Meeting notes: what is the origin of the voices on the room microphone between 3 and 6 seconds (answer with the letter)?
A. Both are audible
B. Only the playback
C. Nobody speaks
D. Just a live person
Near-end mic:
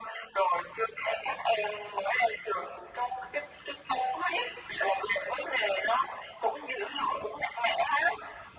B